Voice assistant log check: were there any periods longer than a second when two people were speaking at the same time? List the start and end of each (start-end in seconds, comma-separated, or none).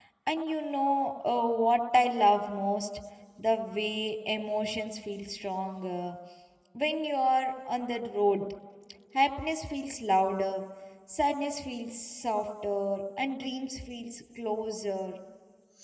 none